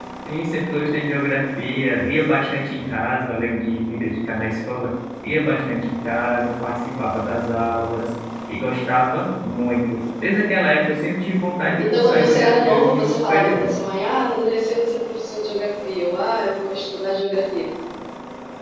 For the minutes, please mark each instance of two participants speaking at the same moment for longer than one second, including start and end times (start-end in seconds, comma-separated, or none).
11.8-13.6